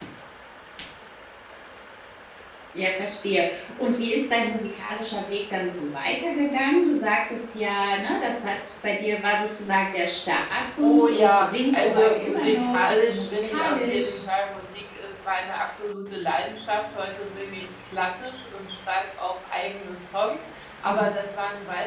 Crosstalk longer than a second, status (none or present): present